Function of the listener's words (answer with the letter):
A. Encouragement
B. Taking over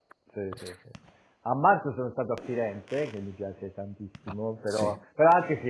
A